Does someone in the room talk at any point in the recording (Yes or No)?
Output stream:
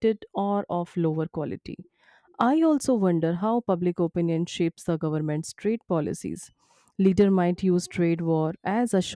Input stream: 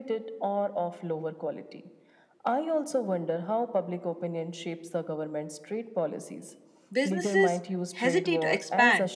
Yes